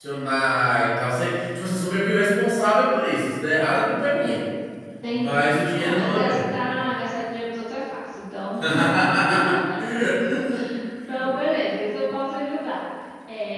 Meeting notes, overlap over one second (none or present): present